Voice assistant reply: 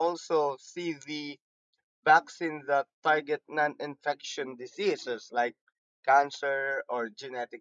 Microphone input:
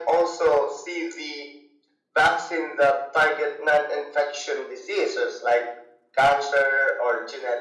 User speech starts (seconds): none

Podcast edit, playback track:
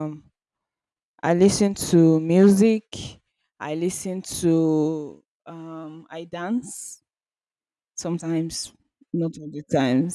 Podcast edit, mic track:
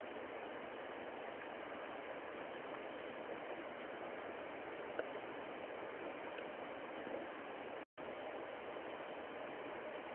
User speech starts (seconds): none

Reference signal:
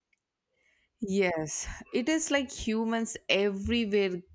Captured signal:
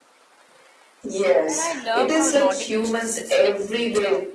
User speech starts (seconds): 1.5 s

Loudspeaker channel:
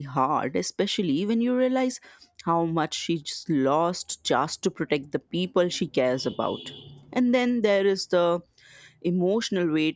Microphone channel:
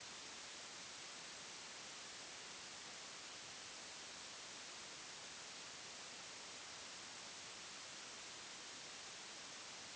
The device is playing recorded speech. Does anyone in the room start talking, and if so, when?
none

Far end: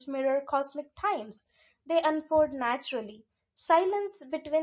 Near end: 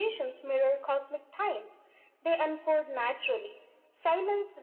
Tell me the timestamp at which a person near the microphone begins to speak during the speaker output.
none

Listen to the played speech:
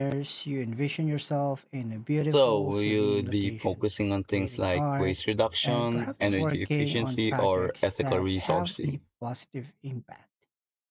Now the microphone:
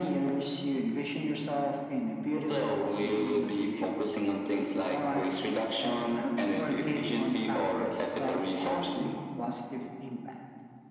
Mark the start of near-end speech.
none

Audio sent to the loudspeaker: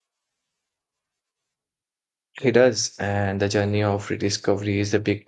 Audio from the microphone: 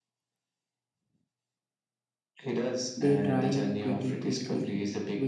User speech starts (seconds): 3.0 s

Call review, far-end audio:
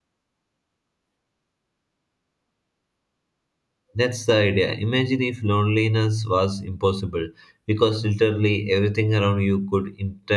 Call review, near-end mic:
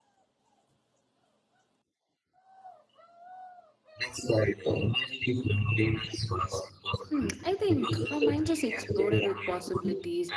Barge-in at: 7.1 s

